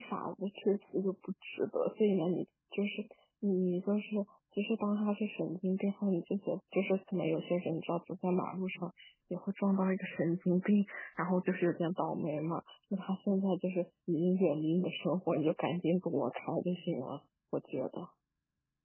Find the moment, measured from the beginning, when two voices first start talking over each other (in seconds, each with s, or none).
none